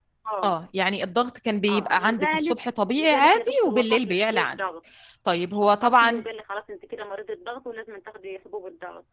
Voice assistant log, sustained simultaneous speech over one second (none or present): present